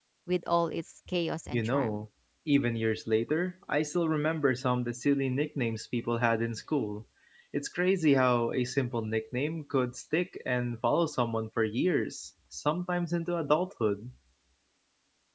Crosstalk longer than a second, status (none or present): none